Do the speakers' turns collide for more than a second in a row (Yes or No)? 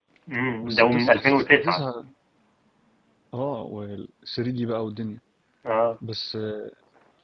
Yes